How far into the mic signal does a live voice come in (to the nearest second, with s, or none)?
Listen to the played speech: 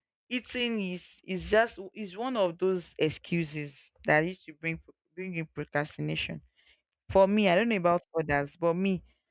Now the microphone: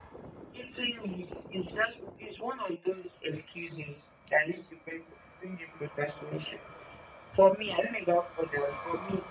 none